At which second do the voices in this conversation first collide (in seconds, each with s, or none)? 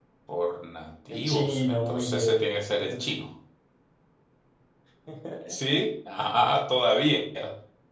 1.1 s